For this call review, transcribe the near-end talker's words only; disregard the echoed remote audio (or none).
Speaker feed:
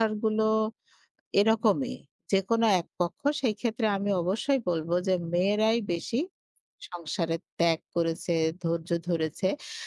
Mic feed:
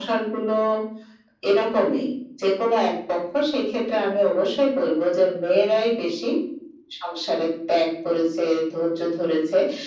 none